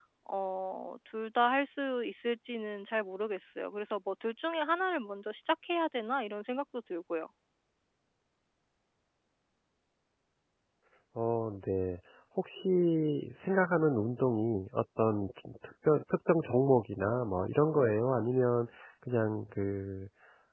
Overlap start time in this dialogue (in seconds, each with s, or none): none